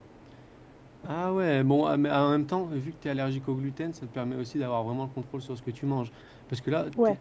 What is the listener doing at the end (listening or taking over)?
listening